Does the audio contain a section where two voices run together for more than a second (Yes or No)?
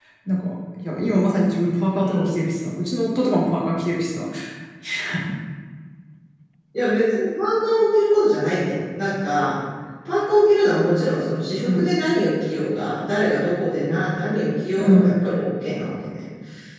No